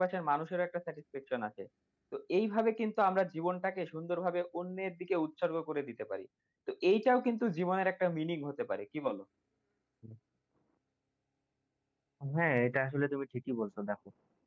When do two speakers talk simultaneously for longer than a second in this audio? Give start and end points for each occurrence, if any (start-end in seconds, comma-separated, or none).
none